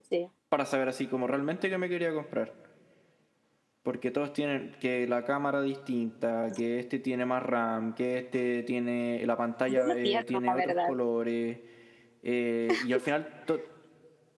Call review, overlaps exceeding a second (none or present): present